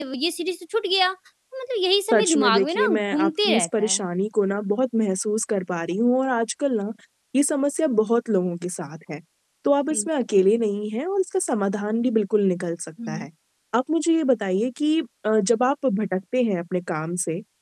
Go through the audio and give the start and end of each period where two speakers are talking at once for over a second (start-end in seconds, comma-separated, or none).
2.1-4.0